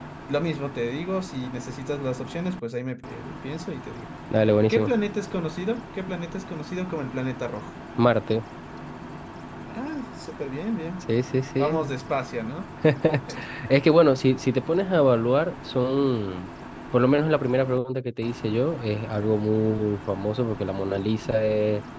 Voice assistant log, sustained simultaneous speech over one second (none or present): none